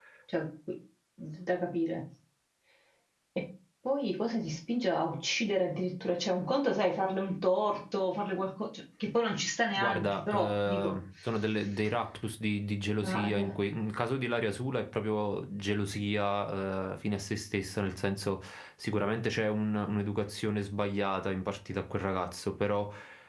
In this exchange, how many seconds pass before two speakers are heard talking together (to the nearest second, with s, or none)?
10 s